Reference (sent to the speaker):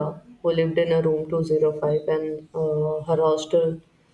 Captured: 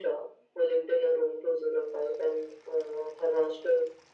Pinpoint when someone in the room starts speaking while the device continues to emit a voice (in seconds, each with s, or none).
none